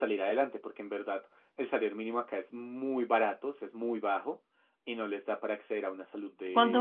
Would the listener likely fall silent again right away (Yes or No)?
No